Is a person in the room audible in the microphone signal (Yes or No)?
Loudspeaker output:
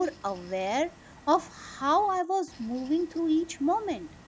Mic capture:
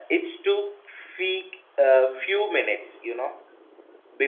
Yes